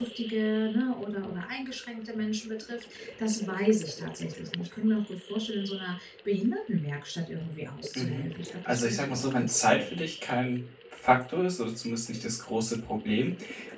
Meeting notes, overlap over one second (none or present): present